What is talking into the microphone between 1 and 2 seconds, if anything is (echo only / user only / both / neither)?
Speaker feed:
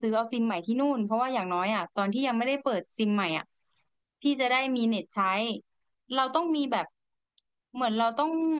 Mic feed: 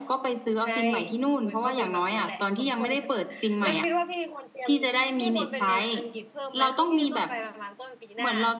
both